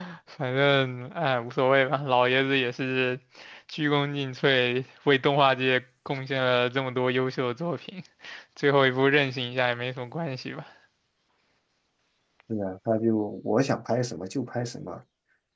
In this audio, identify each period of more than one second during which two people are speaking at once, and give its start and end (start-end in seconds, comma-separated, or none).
none